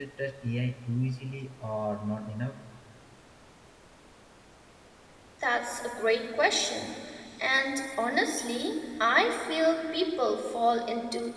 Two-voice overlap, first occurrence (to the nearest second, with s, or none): none